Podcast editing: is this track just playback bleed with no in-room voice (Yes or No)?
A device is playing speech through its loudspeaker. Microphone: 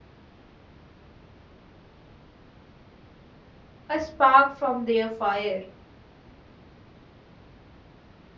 No